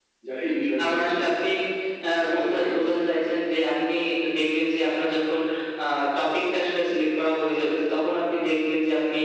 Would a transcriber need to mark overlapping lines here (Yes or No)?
Yes